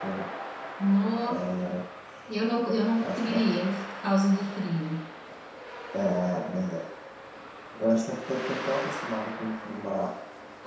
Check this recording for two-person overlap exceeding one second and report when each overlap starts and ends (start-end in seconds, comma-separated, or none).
none